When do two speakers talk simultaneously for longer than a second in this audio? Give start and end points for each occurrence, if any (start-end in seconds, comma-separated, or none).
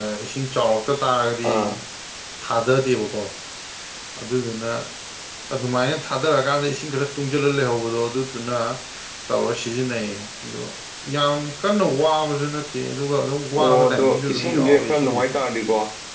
13.6-15.2